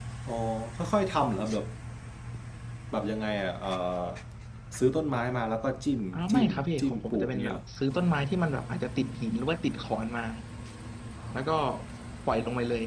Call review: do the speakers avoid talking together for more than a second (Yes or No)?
No